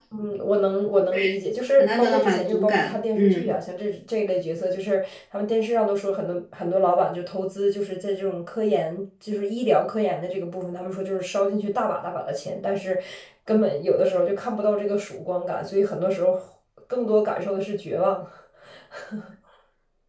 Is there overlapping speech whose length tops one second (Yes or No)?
Yes